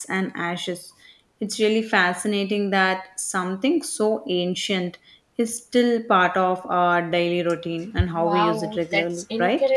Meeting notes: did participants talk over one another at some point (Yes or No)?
Yes